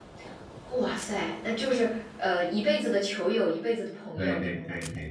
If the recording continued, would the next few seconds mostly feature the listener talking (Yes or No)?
Yes